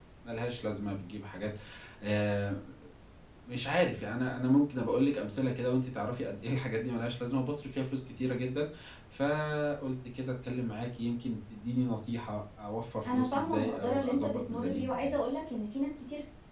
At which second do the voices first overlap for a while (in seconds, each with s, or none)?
13.0 s